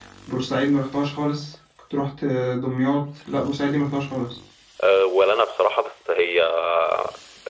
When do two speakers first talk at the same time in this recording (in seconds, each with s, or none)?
none